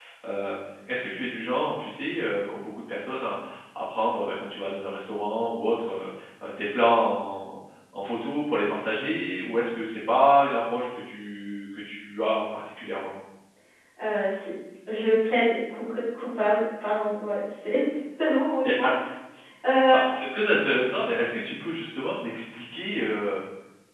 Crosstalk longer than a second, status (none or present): none